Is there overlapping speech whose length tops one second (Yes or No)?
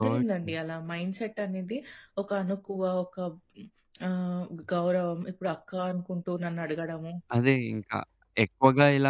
No